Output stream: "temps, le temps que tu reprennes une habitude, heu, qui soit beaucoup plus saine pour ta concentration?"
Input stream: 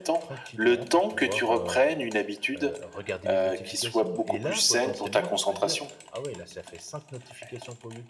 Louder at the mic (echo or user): echo